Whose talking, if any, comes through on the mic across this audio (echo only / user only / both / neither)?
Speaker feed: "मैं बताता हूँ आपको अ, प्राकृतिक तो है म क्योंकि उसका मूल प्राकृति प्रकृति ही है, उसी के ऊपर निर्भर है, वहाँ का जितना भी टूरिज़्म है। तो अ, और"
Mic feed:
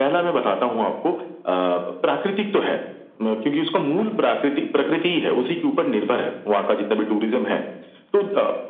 echo only